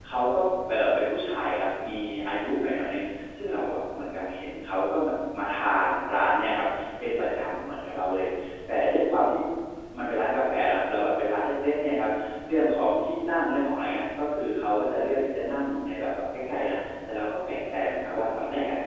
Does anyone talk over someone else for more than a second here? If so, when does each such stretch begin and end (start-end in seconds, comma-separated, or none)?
none